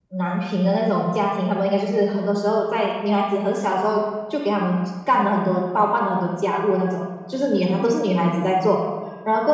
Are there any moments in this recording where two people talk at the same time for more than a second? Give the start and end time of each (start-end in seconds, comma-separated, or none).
none